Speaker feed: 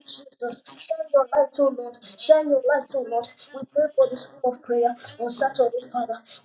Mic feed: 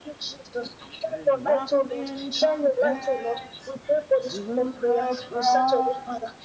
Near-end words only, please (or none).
and nothing compares to the promise